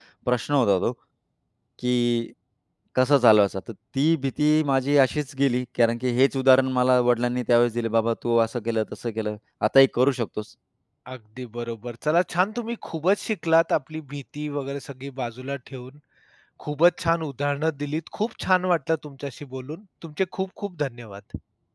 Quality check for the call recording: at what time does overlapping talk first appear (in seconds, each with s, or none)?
none